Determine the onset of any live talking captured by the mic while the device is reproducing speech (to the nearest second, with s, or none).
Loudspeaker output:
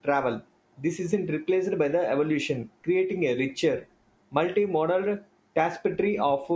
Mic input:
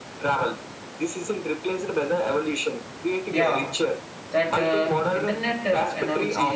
3 s